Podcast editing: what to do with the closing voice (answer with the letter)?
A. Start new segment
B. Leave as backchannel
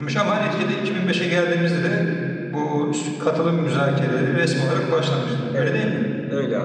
A